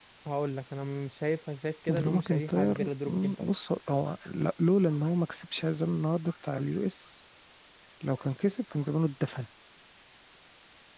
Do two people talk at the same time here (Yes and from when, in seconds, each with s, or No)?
Yes, from 1.9 s